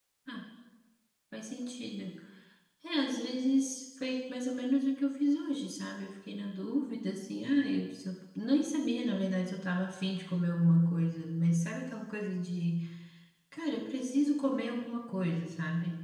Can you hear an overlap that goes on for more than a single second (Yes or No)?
No